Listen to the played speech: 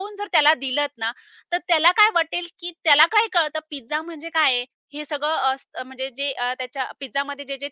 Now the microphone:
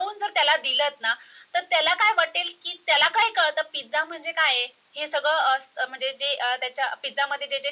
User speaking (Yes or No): No